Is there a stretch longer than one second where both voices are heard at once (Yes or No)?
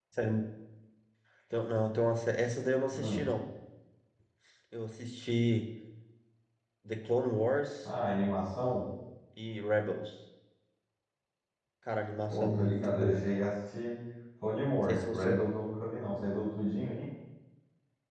Yes